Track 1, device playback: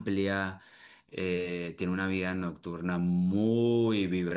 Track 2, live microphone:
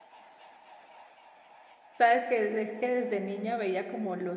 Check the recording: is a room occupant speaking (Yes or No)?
Yes